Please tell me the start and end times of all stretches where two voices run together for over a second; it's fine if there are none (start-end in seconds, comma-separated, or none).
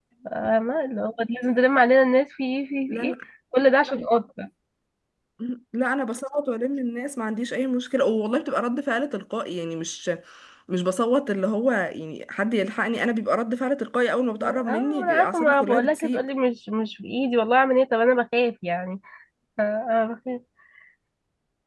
14.4-16.3